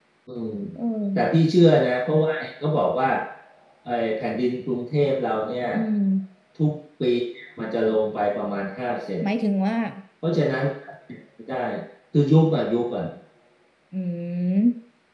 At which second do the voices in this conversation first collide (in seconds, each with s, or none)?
none